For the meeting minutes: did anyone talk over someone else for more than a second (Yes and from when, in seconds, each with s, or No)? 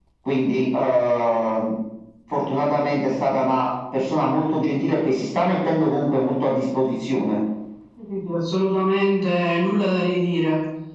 No